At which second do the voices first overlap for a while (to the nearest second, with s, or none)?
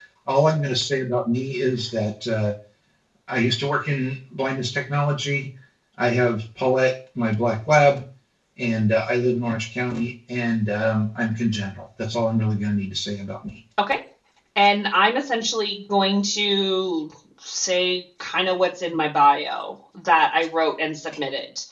none